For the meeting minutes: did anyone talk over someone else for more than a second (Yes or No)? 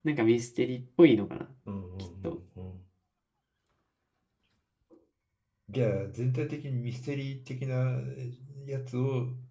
No